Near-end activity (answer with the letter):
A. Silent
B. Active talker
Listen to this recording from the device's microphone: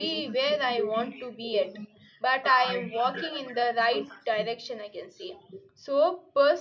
B